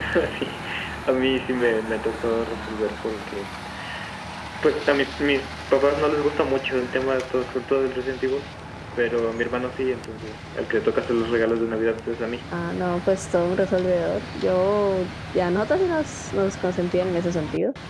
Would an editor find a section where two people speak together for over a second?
No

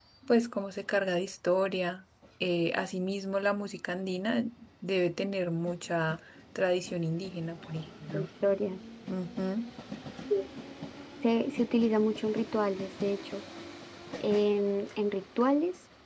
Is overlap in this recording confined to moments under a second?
Yes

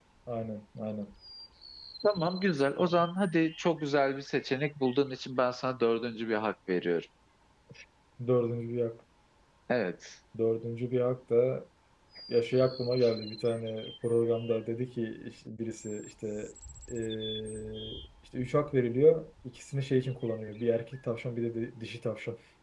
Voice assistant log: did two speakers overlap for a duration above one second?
No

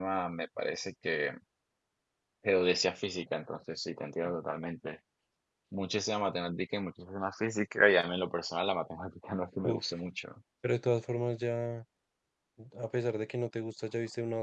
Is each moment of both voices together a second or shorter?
Yes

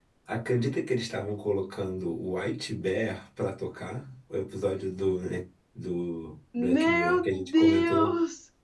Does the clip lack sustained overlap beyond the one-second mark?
No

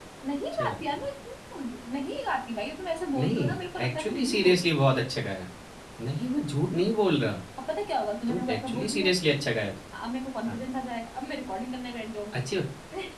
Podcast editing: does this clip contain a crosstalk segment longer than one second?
Yes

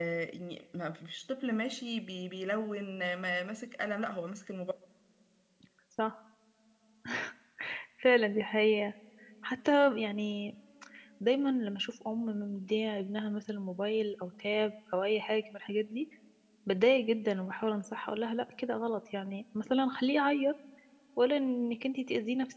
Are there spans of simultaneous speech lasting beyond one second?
No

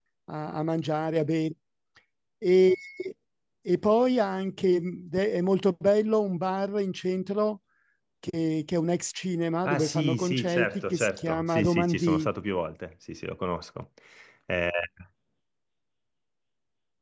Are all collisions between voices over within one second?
No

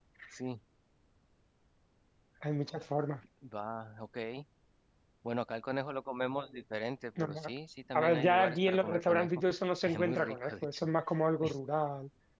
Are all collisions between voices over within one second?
No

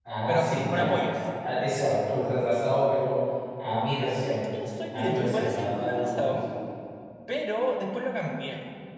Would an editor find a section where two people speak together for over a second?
Yes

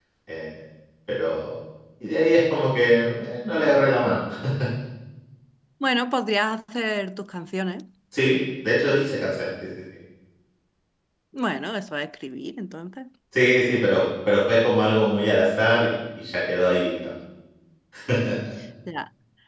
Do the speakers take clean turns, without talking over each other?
Yes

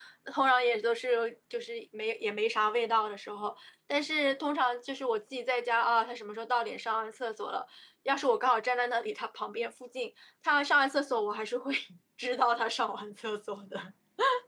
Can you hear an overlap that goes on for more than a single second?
No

